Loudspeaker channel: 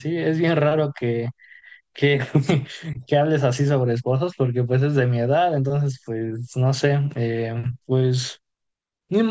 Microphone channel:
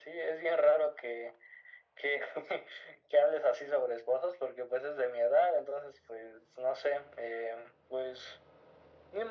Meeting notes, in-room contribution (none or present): none